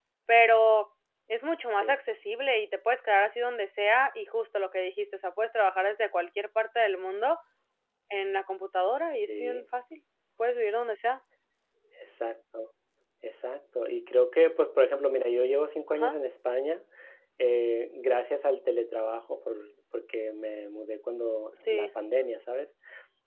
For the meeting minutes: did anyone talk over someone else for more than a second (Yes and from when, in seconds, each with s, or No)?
No